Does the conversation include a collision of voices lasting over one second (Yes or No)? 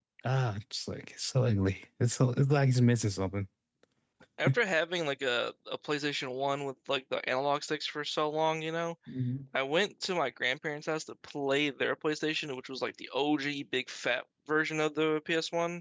No